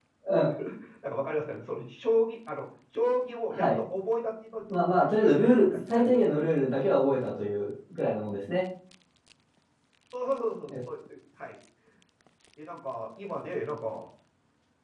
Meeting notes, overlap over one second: present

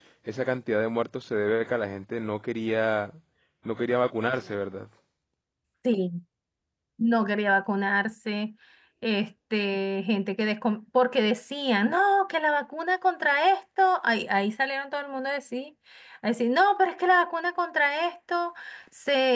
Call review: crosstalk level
none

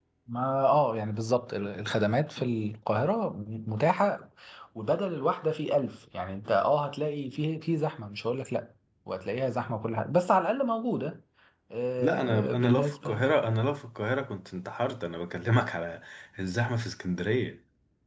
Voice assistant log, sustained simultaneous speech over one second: present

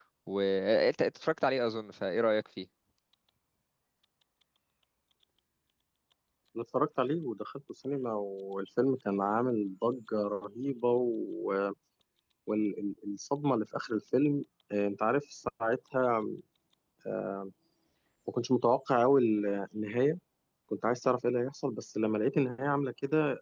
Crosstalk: none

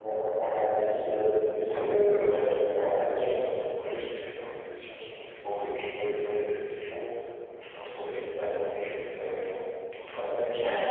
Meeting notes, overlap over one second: present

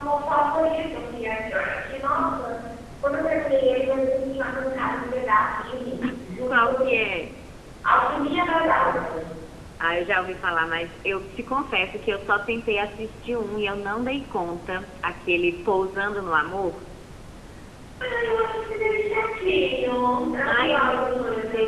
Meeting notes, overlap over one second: present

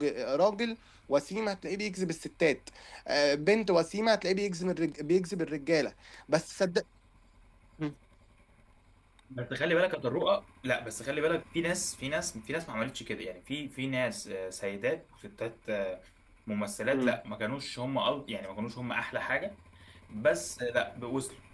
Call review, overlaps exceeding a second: none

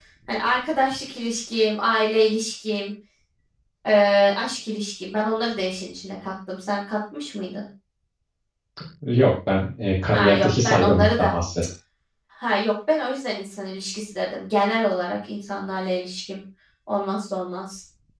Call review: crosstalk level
present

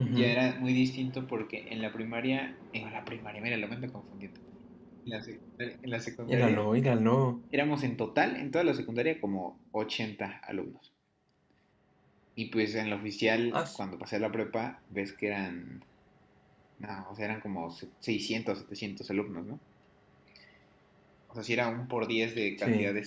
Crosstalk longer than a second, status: none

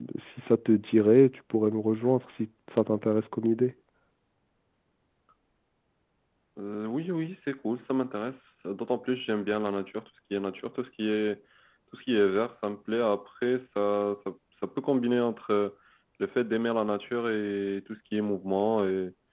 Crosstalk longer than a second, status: none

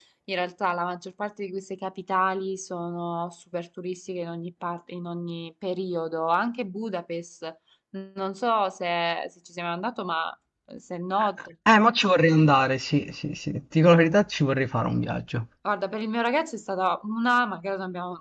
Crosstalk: none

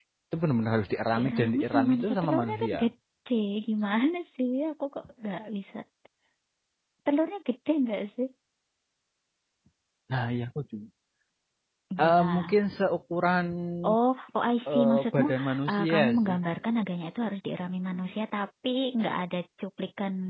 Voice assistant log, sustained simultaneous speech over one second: present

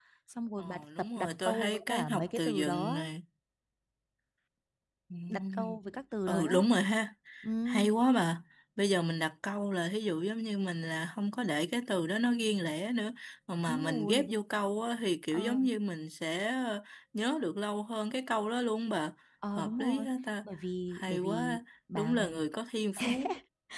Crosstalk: present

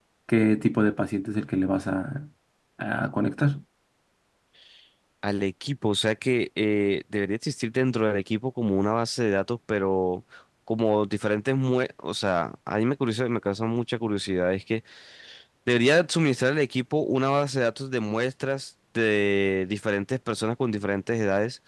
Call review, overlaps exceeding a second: none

